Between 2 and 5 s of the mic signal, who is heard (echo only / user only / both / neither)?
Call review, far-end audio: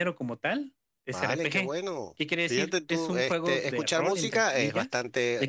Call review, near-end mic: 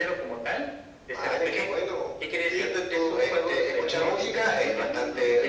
both